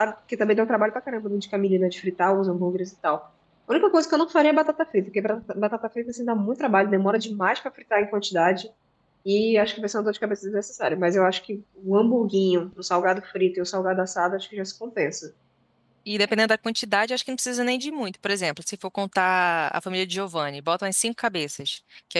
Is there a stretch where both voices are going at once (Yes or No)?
No